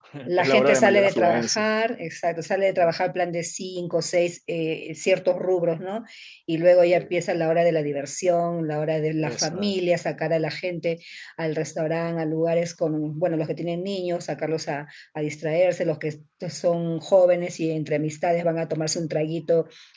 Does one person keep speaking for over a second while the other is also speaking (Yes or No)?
Yes